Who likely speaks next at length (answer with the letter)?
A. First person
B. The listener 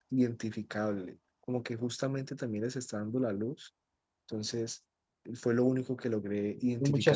B